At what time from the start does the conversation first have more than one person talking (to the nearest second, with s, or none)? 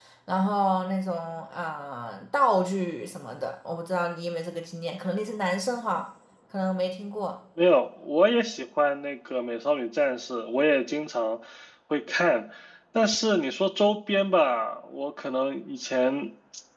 none